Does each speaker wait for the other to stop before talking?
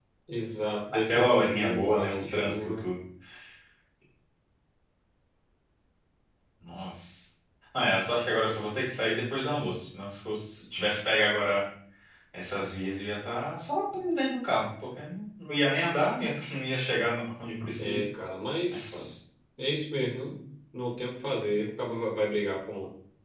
No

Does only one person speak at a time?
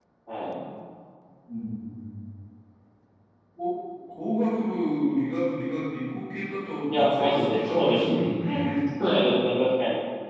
No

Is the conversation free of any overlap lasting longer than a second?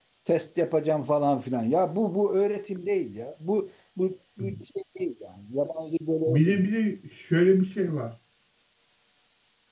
Yes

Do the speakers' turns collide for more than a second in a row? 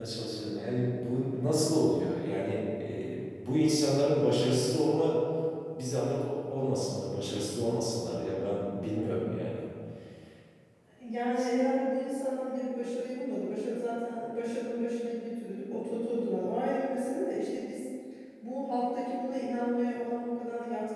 No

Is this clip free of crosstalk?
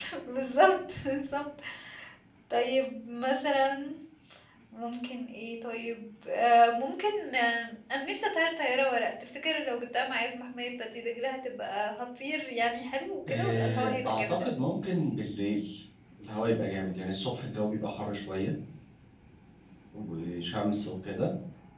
No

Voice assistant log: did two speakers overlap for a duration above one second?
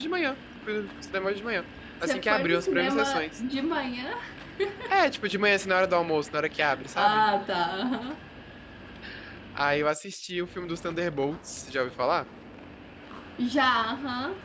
Yes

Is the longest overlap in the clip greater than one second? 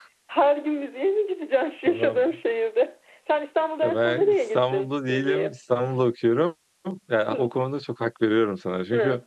Yes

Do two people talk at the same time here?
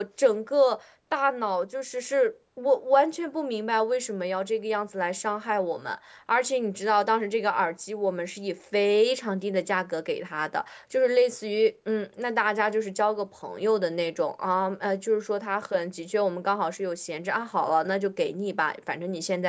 No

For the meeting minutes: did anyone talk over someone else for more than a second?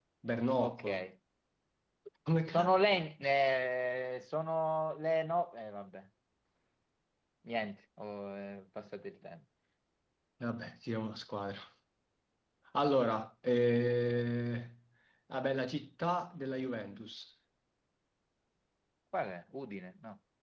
No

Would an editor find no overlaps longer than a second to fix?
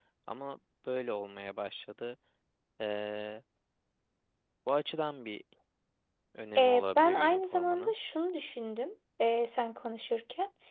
No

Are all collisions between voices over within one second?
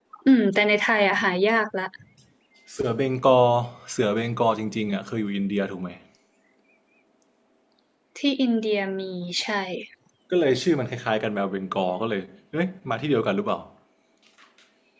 Yes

